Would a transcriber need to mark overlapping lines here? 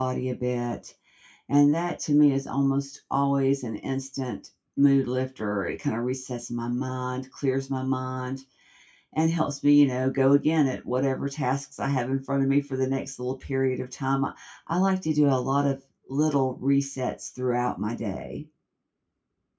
No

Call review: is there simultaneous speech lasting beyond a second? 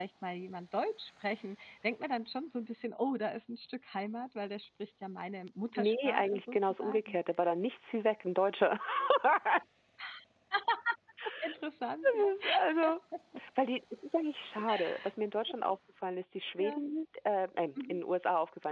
Yes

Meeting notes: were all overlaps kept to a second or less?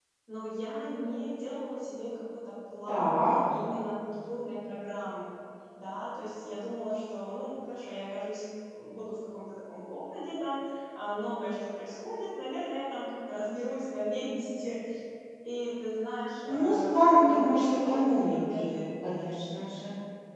No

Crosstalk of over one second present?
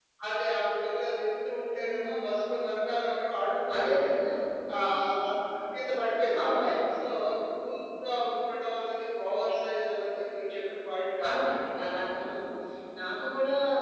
No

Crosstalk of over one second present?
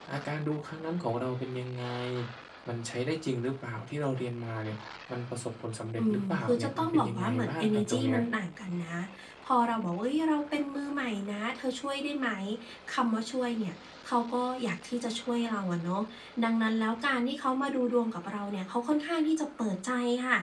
Yes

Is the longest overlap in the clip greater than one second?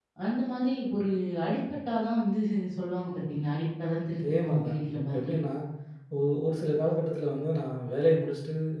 Yes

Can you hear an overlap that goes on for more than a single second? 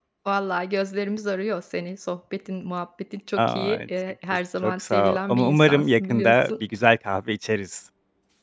Yes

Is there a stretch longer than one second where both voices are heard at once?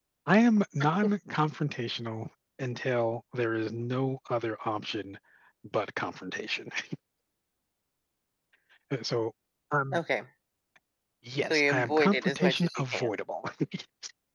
Yes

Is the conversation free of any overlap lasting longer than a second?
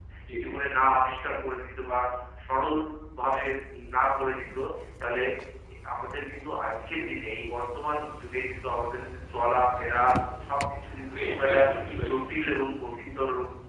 Yes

